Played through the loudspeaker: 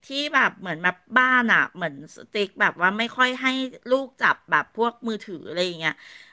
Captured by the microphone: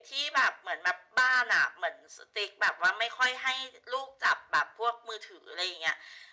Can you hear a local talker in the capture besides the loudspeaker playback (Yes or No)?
No